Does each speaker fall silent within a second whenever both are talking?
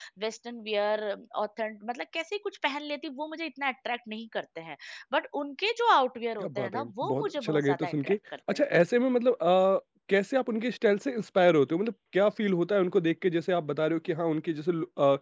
No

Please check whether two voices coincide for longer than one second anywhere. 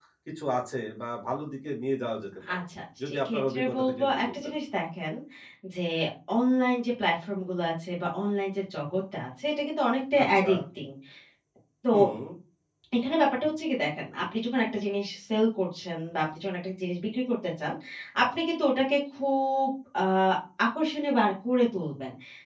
Yes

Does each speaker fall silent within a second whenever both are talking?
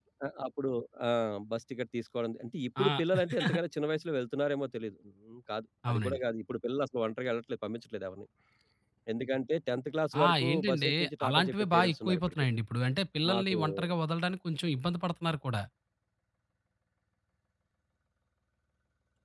No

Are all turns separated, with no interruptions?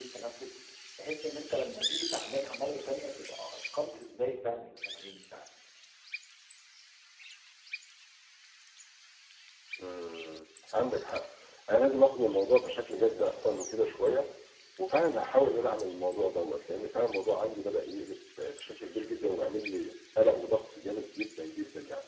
Yes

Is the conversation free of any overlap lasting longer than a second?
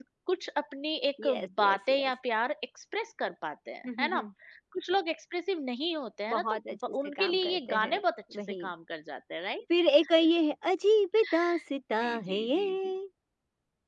No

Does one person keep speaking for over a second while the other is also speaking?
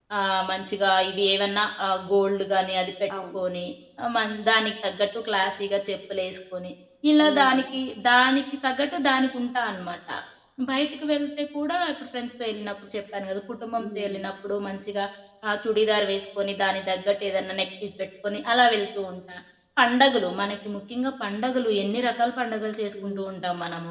No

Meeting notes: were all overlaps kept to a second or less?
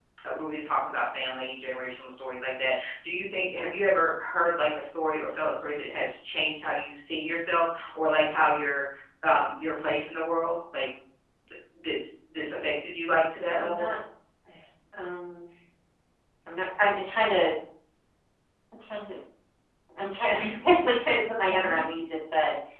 Yes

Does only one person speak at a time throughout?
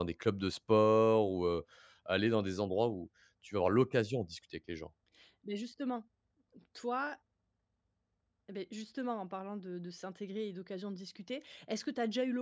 Yes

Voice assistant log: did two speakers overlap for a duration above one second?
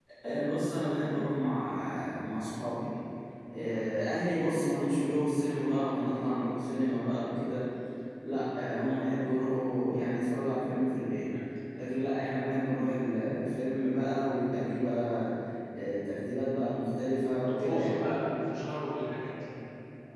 No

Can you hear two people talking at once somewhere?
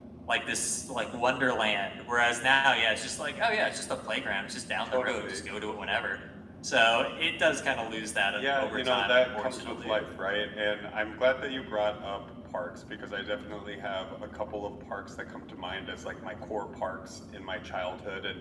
Yes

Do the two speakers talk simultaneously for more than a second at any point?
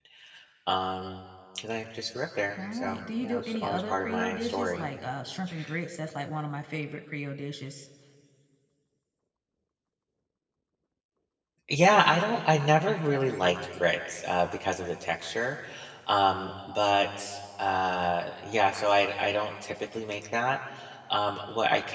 Yes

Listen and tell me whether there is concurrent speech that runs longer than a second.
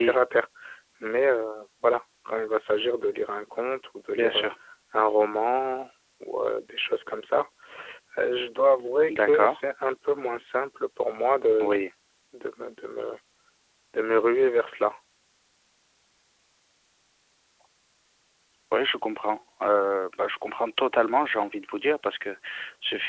No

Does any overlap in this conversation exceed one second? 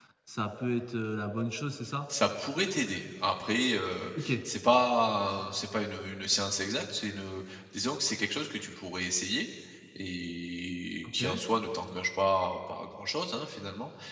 No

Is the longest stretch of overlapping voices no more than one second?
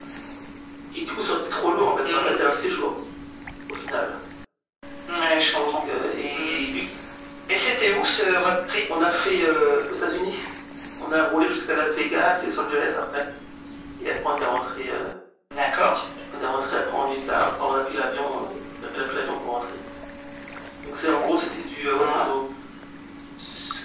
Yes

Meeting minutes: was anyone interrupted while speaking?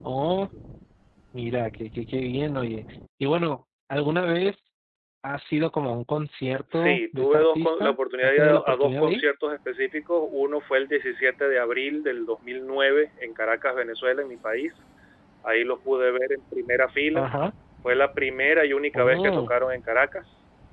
Yes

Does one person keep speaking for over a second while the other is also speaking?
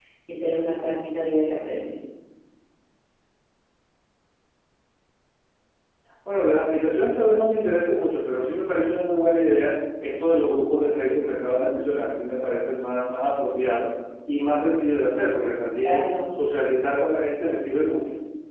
No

